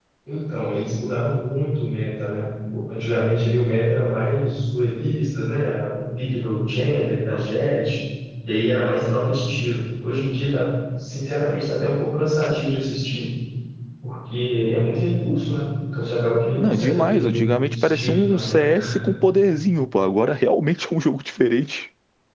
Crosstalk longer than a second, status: present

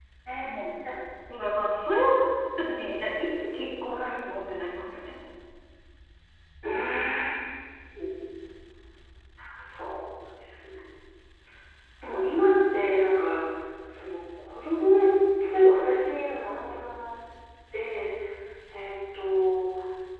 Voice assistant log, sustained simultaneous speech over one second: none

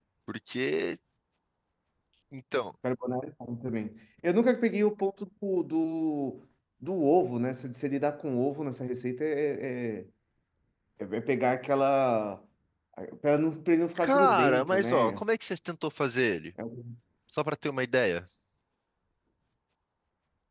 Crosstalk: present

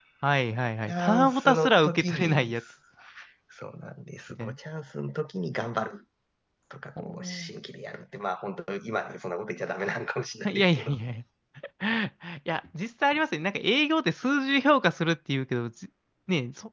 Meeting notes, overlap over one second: present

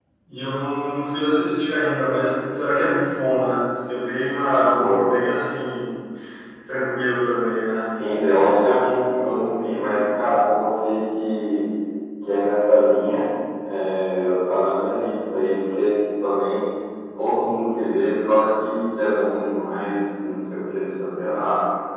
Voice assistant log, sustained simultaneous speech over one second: none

